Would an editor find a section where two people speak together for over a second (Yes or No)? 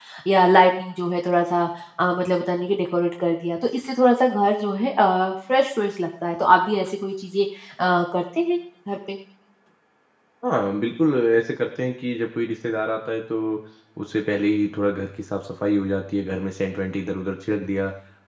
No